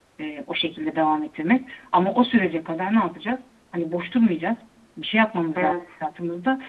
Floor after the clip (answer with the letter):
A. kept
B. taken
A